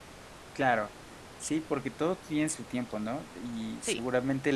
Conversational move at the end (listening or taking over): listening